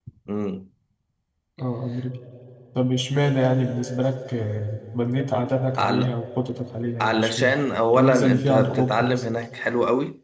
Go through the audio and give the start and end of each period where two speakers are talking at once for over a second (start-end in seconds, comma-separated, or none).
7.9-9.2